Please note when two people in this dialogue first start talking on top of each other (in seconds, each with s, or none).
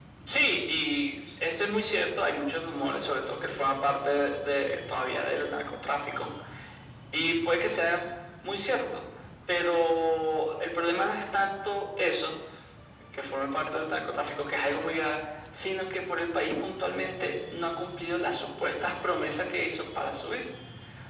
none